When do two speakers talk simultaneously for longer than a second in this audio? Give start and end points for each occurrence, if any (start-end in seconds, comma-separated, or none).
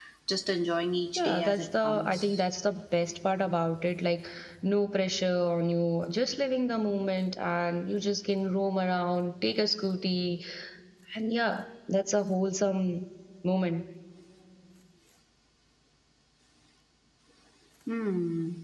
1.1-2.4